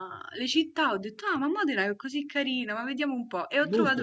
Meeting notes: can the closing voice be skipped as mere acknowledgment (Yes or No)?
Yes